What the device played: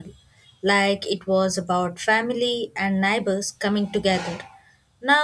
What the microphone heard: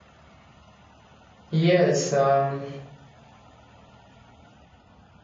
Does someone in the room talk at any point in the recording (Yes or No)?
Yes